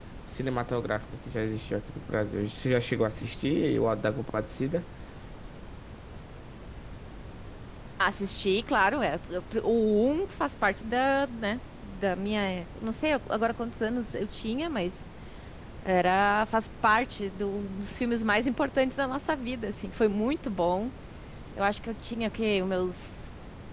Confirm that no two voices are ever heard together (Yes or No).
Yes